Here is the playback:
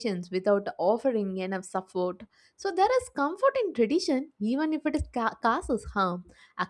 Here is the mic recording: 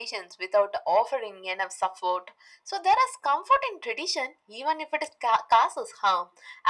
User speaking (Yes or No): No